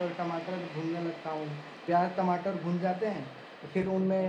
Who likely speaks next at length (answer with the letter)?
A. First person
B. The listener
A